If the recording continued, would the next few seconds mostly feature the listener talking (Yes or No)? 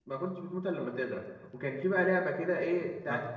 No